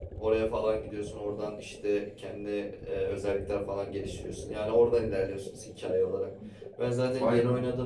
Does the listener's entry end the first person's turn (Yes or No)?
No